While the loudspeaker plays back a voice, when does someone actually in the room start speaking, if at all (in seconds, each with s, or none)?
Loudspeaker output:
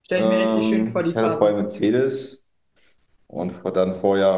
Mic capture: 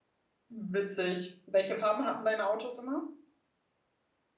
0.5 s